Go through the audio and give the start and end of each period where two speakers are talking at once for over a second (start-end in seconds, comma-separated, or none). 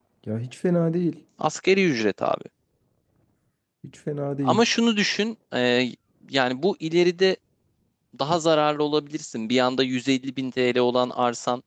none